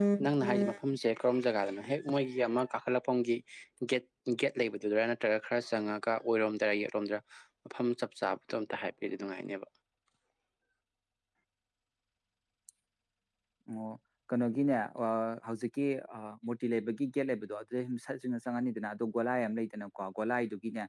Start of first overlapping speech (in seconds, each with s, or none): none